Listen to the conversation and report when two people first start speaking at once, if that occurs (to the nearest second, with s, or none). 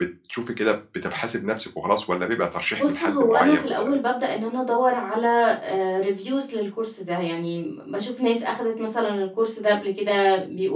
3 s